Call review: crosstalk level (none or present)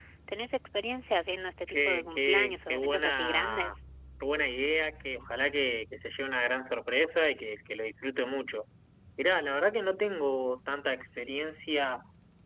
present